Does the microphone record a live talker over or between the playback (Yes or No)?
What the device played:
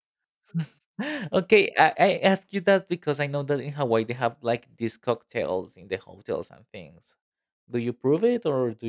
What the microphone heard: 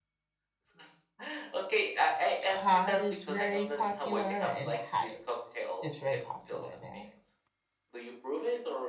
Yes